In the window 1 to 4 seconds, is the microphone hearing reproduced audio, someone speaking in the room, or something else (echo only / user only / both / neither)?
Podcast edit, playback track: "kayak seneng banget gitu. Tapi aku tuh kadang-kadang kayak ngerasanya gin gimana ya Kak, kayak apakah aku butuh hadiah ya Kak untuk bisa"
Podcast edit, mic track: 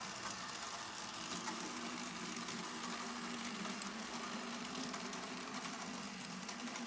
neither